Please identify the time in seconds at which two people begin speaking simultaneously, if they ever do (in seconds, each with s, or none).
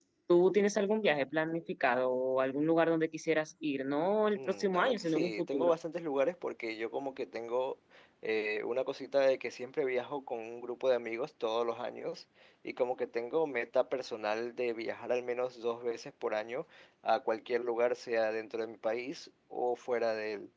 4.4 s